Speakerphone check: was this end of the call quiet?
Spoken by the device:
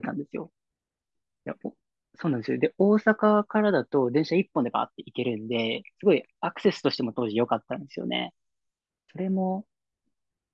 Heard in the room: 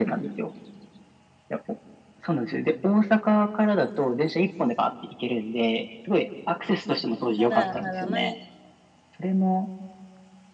No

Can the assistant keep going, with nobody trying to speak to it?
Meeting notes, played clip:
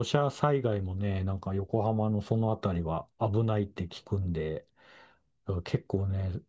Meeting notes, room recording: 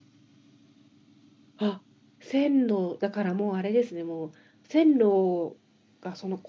No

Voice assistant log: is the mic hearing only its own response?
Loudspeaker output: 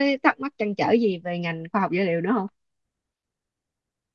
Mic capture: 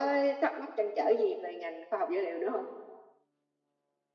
Yes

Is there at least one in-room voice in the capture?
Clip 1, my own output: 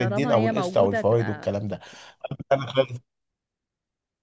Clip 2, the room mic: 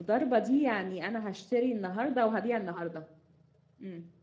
Yes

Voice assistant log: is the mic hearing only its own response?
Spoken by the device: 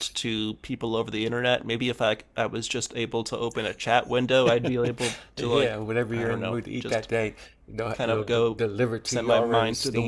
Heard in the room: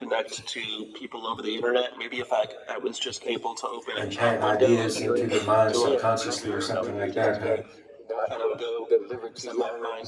No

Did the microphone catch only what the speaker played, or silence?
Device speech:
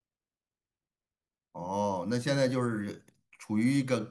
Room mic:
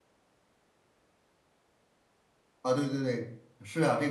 No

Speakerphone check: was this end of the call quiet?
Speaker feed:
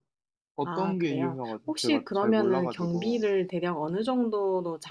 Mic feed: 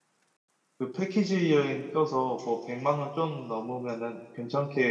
No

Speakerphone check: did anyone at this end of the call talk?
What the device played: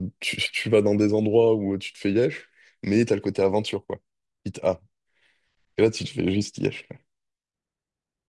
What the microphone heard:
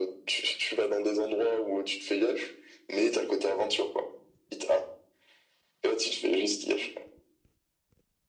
No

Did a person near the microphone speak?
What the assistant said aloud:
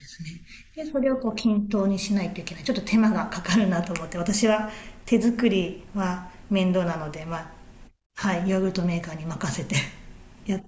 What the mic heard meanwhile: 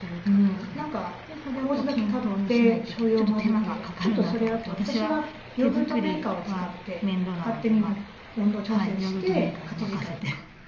Yes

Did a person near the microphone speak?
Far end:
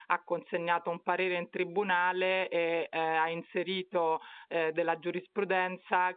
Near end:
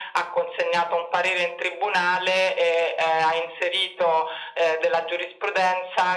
No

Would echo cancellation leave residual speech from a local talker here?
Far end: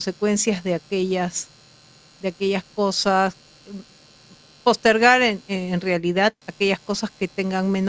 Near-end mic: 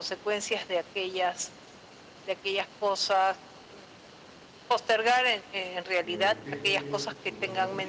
Yes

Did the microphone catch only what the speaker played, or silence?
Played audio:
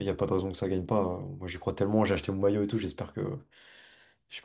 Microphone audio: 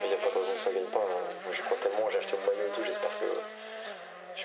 Yes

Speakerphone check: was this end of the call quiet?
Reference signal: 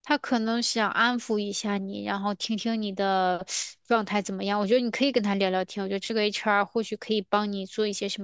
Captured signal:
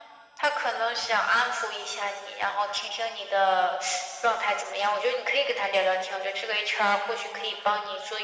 Yes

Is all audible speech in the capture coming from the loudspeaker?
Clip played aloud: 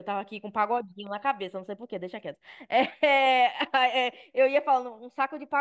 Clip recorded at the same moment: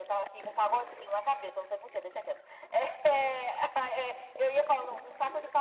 Yes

